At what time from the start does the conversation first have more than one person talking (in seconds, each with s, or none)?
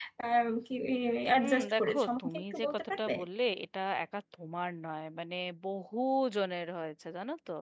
1.4 s